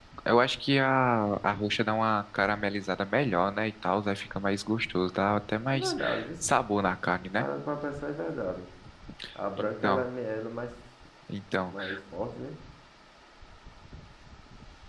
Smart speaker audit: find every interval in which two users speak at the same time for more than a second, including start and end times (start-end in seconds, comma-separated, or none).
none